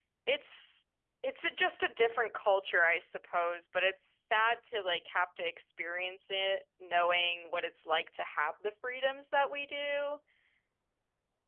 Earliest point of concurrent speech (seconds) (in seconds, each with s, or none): none